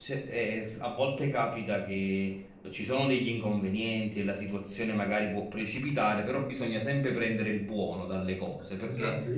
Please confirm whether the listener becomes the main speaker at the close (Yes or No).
Yes